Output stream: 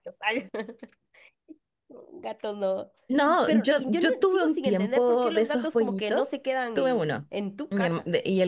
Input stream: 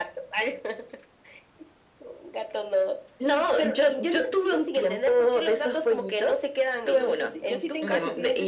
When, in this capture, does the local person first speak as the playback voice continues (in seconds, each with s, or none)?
6.8 s